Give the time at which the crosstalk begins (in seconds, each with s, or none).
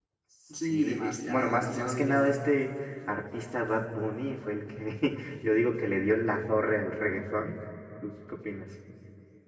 0.6 s